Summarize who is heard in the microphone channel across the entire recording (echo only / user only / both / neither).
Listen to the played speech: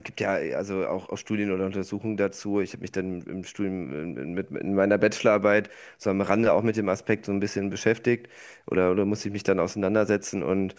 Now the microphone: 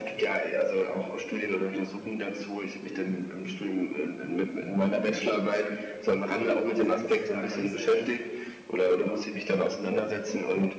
both